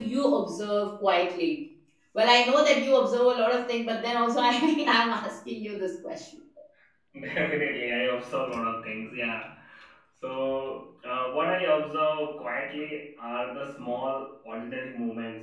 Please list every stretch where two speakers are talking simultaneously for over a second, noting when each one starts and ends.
none

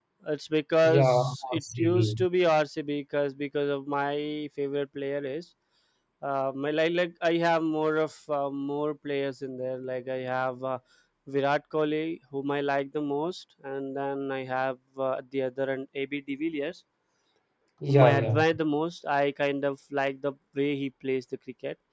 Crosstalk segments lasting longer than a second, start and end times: 0.8-2.2

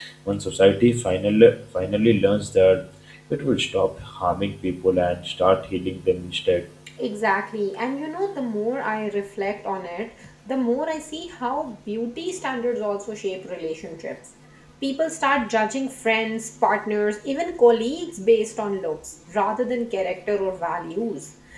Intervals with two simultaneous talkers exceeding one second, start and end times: none

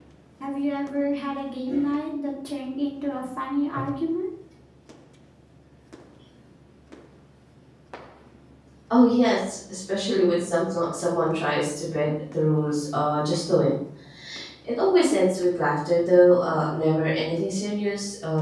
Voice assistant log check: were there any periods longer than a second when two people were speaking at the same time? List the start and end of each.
none

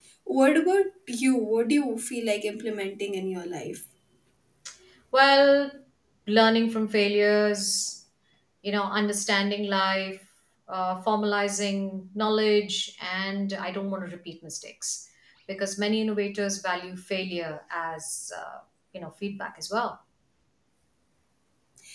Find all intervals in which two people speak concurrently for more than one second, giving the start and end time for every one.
none

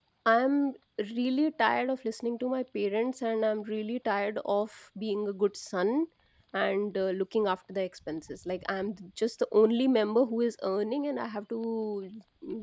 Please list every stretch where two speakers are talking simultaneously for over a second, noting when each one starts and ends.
none

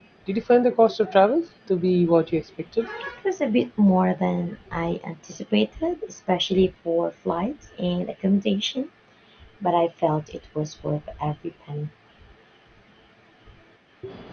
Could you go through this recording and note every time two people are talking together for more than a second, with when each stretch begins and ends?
none

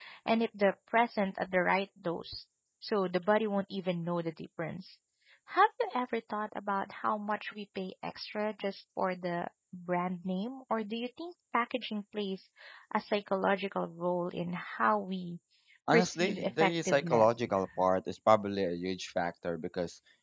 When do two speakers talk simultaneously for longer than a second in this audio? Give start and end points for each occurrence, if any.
15.9-17.3

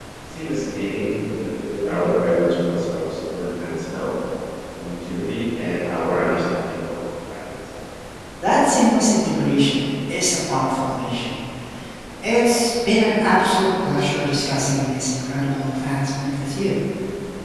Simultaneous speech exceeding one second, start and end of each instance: none

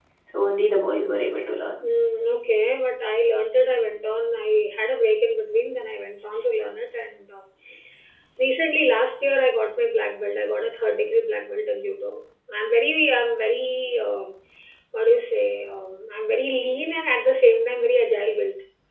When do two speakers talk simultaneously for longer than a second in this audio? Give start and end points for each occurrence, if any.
none

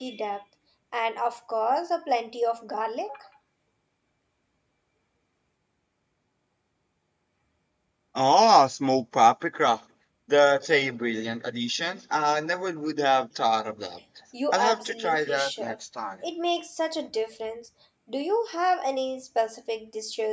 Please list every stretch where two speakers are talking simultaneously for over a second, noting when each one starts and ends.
14.5-15.8

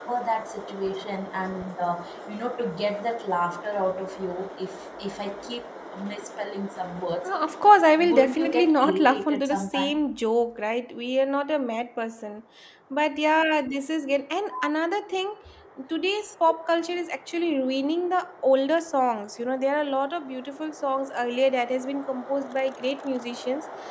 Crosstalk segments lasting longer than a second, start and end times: 8.0-10.0

